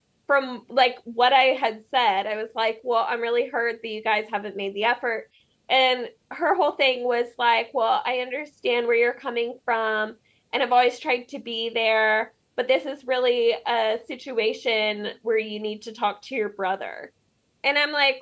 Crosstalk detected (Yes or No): No